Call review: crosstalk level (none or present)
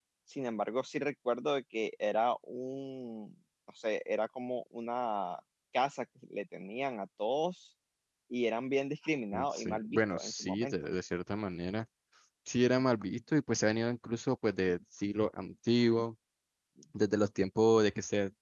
present